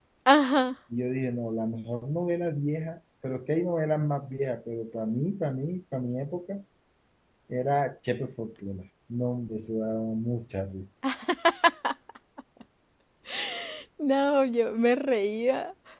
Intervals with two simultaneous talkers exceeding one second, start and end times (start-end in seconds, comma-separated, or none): none